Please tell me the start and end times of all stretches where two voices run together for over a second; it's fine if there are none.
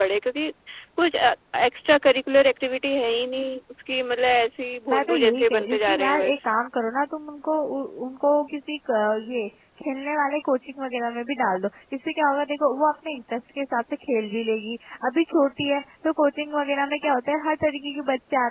4.9-6.3

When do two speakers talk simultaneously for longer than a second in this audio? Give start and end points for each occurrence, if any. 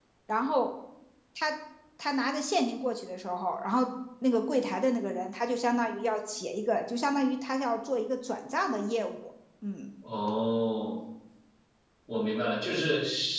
none

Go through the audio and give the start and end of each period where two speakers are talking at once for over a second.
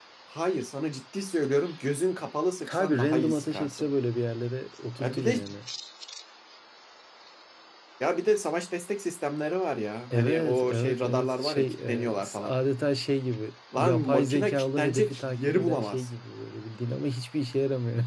2.7-3.9, 10.1-12.5, 13.7-16.1

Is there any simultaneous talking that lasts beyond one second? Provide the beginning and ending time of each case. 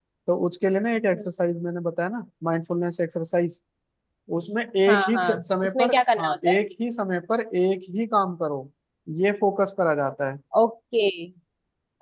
4.9-6.6

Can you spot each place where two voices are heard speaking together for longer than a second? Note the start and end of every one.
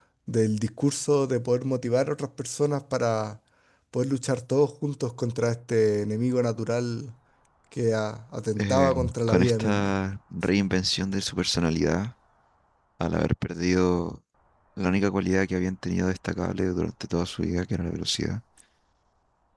8.6-9.9

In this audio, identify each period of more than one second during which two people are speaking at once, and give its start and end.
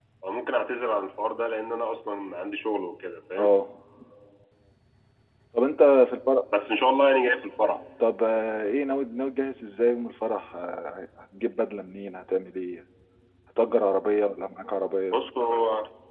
none

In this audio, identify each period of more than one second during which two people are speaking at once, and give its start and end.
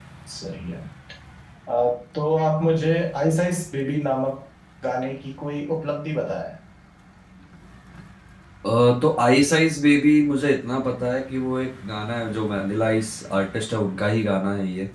none

